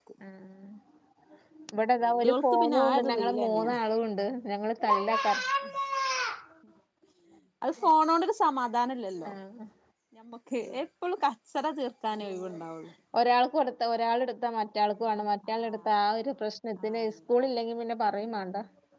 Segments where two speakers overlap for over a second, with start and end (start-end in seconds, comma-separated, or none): 2.0-3.8